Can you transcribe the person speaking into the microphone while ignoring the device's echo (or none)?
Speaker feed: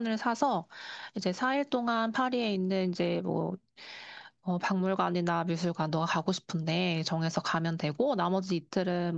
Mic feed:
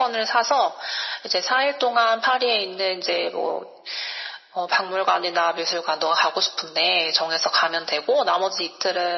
none